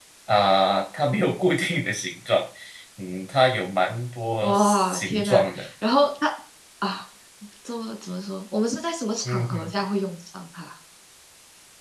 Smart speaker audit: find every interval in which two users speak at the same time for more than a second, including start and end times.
4.4-5.7

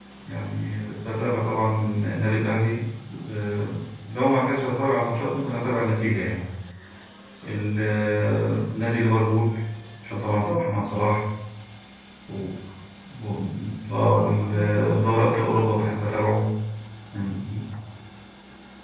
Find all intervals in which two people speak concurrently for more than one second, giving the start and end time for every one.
14.0-15.7

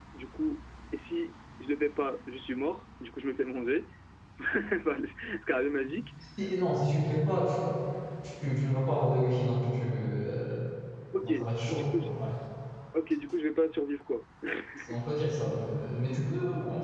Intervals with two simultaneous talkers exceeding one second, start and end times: none

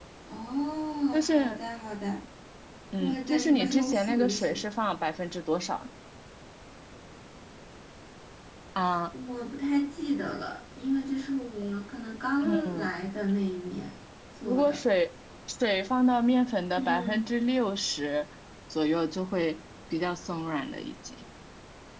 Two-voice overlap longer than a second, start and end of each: 3.0-4.6

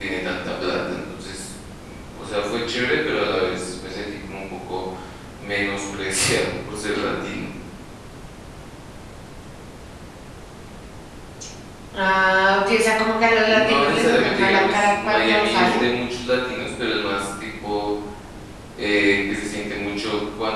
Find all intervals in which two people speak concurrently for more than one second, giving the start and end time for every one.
13.5-15.8

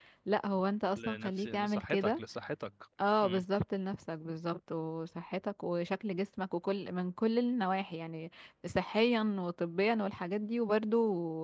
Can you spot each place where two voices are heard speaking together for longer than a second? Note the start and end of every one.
1.0-2.2

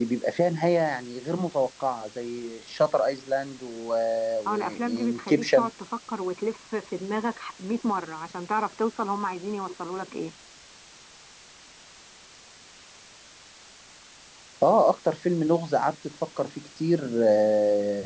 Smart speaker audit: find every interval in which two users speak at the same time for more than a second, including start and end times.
4.5-5.7

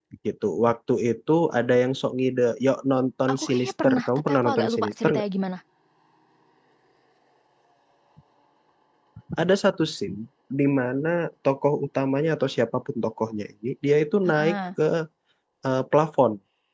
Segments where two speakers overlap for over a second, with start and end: 3.3-5.2

